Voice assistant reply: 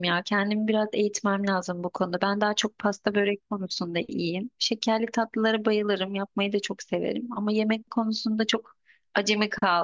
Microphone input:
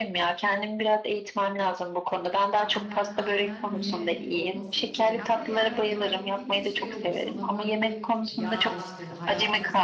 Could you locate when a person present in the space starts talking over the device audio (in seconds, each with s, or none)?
2.5 s